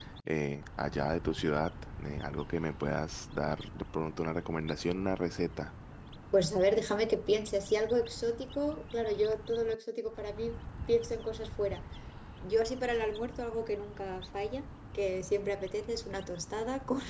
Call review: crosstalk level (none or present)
none